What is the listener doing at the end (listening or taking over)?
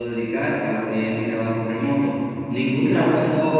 listening